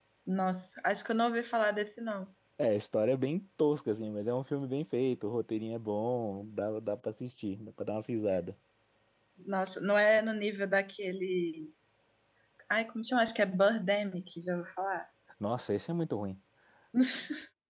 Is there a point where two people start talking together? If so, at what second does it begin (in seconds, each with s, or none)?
none